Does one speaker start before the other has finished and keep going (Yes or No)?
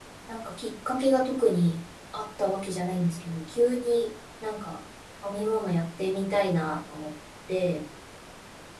No